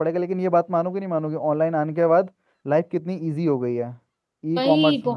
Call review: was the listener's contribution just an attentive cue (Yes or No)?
No